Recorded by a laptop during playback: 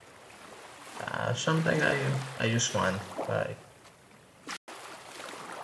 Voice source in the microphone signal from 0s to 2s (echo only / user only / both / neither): user only